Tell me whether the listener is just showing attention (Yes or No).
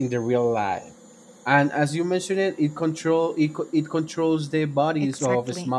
No